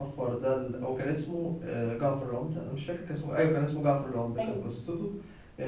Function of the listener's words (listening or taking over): listening